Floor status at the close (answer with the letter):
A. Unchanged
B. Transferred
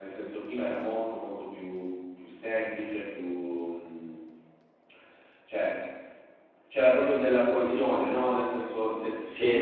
A